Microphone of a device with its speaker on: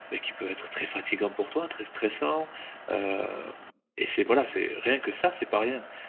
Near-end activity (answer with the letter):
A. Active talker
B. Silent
A